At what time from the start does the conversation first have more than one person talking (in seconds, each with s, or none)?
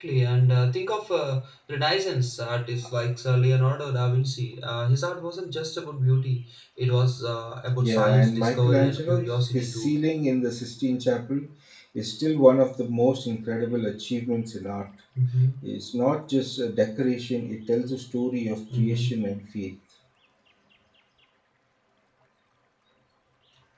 7.8 s